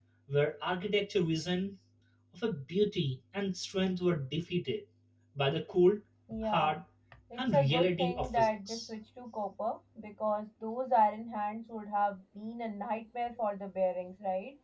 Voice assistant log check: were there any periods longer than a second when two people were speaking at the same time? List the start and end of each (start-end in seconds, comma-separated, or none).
7.4-8.8